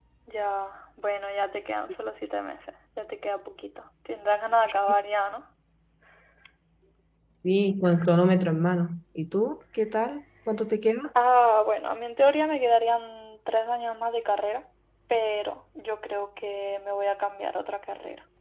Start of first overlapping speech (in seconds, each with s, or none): none